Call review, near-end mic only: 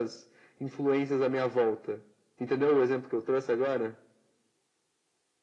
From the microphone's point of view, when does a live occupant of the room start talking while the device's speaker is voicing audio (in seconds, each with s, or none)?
none